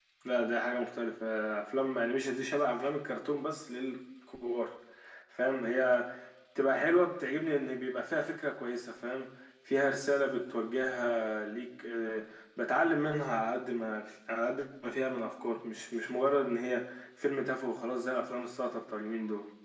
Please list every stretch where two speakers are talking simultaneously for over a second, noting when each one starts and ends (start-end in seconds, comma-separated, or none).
none